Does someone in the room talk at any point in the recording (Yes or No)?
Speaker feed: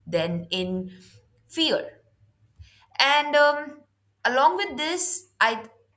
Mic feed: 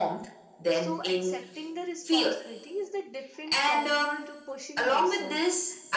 Yes